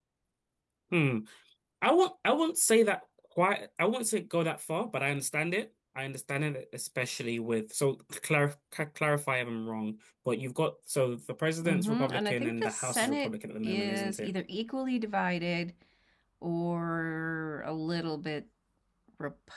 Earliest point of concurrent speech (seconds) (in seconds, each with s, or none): 11.6 s